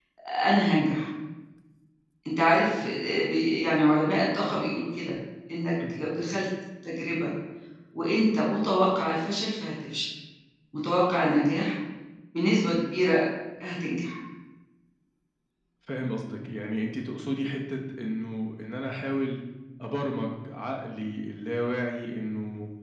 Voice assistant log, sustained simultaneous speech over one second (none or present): none